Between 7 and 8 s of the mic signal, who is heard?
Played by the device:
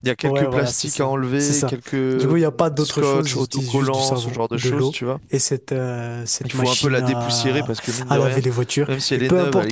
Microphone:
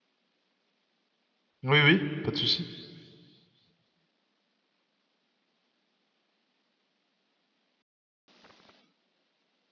neither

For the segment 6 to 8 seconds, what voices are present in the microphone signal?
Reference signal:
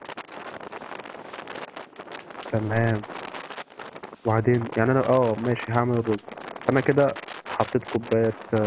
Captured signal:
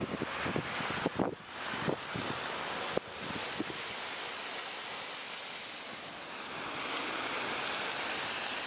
neither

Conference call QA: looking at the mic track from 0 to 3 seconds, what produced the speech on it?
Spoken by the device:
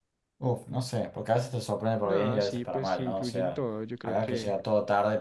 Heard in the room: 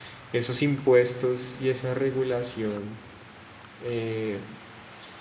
user only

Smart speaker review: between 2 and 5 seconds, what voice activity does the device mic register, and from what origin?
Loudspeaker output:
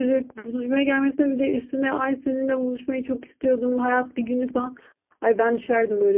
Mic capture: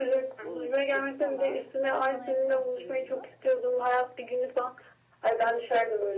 both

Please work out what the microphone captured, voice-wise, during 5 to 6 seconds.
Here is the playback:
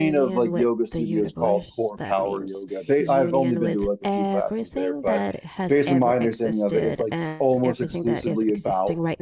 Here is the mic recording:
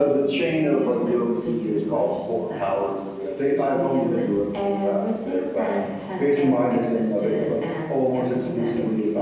echo only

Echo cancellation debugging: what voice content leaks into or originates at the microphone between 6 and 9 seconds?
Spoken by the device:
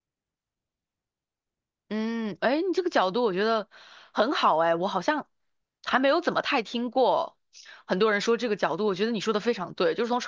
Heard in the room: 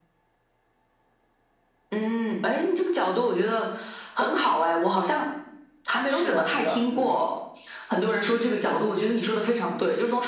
both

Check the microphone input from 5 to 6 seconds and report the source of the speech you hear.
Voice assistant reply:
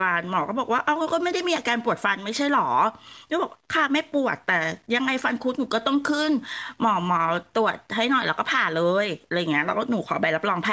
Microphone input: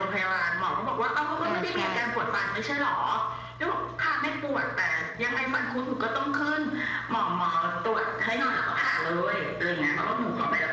echo only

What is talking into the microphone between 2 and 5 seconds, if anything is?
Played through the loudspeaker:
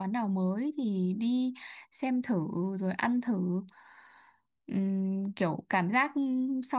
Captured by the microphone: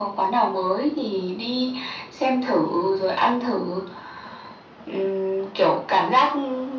echo only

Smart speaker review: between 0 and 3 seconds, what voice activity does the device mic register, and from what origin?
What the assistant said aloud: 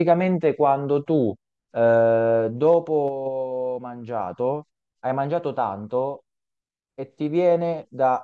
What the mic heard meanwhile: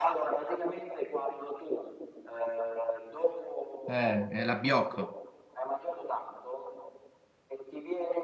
echo only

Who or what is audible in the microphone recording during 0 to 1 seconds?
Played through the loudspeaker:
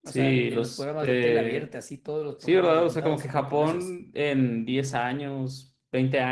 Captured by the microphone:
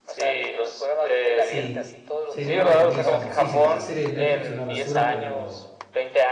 echo only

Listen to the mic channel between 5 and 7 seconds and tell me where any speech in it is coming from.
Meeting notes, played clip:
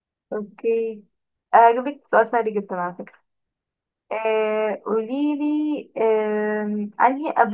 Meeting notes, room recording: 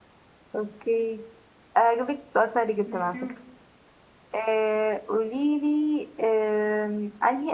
echo only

